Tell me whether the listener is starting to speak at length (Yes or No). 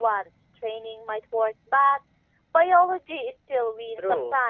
Yes